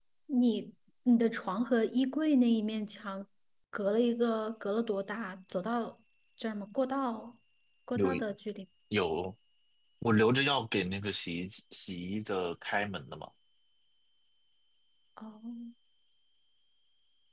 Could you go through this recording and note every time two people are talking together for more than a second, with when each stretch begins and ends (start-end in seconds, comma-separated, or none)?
none